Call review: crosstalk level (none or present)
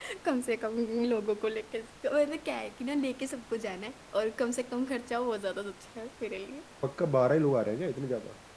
none